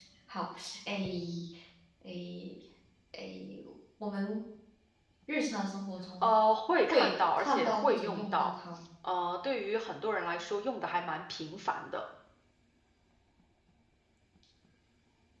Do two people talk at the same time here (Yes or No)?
Yes